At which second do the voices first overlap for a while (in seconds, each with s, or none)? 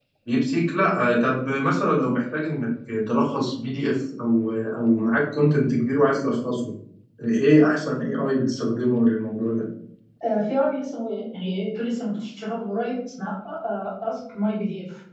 none